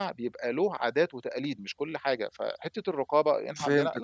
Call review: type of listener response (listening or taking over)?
taking over